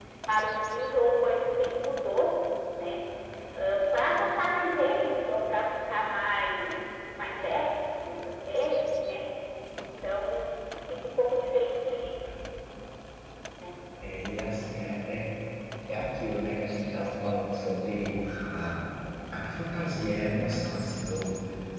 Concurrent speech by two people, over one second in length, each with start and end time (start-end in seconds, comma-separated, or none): none